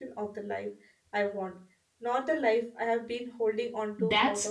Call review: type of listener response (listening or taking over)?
taking over